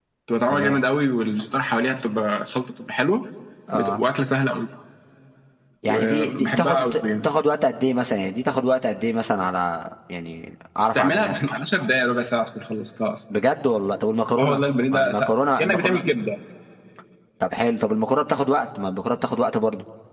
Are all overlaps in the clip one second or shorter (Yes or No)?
No